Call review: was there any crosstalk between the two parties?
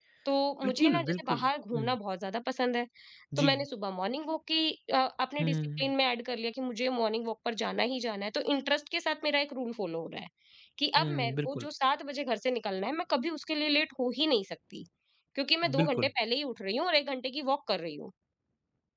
Yes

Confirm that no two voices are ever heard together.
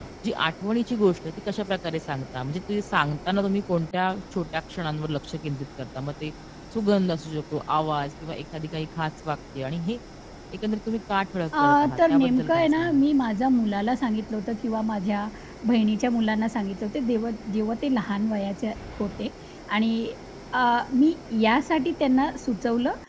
No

